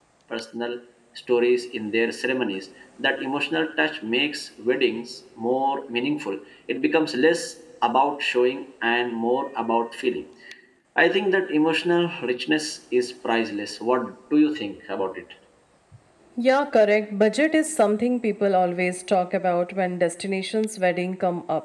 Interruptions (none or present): none